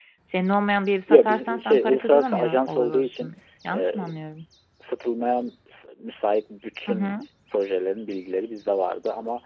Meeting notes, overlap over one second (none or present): present